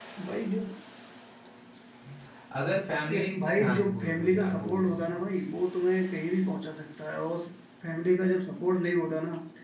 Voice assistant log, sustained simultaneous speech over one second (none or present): present